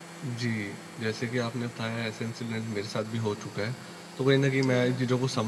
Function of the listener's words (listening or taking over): listening